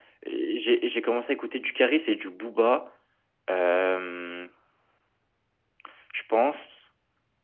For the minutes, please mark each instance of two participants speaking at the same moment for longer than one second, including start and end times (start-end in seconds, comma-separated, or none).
none